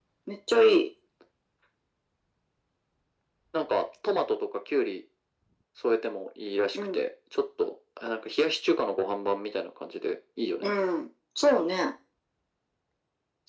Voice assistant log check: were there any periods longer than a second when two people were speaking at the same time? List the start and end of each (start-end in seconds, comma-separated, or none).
none